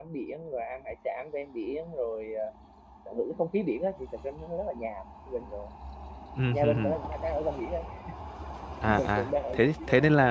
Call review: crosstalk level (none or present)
present